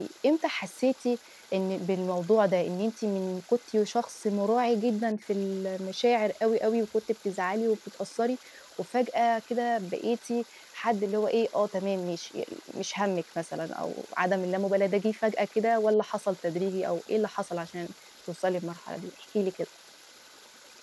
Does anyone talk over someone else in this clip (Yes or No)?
No